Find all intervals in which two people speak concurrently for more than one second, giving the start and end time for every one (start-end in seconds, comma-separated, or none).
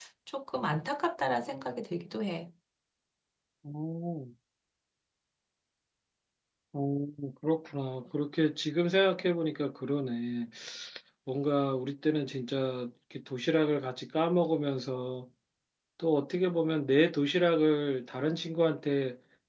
none